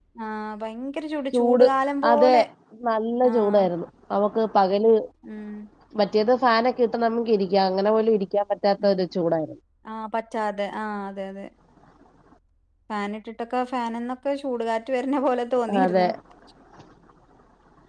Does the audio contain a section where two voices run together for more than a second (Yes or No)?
No